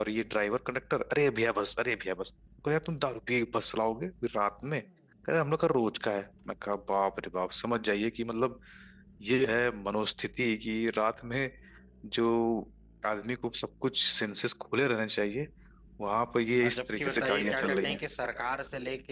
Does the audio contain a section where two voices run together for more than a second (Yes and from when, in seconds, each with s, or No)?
Yes, from 16.6 s